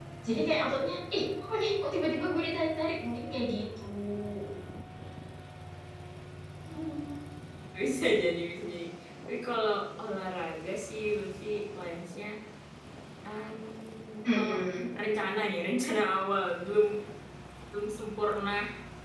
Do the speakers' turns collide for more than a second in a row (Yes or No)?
No